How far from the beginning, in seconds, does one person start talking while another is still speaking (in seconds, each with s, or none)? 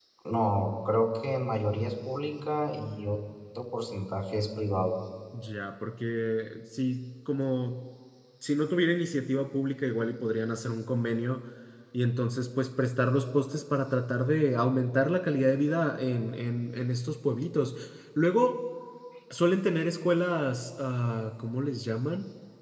none